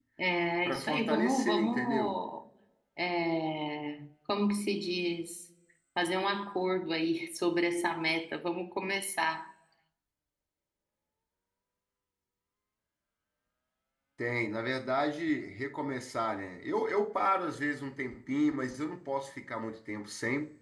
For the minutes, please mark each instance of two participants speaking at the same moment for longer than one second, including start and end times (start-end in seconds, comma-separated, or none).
0.6-2.2